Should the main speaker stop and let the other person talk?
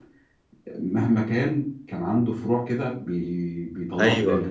Yes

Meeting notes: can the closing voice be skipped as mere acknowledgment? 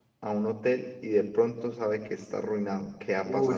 No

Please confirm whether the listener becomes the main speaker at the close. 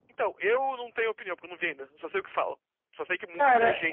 Yes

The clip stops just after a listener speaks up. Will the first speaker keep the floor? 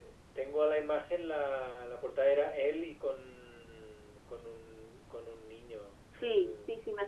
No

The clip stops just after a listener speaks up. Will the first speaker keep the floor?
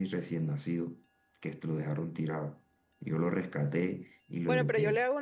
No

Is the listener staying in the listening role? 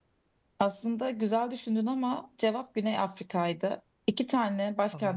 Yes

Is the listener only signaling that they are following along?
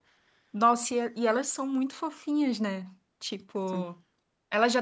Yes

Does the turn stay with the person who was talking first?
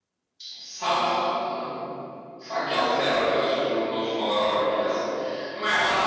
Yes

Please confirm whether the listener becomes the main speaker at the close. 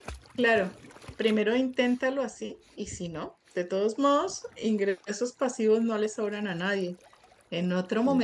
No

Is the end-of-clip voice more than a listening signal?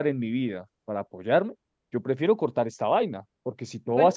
No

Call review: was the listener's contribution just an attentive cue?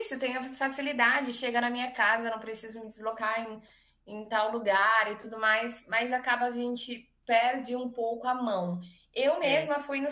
Yes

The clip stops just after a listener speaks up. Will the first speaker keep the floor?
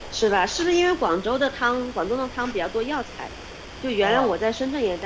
Yes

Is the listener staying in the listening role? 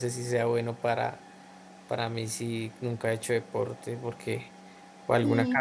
No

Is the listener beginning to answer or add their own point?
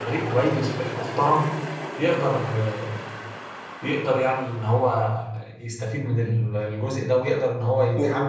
No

